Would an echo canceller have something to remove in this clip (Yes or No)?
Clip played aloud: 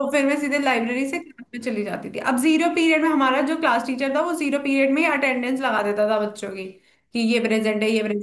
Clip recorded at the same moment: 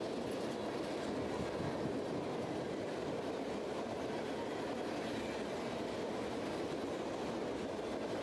No